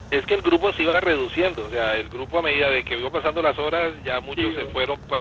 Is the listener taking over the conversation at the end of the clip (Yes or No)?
No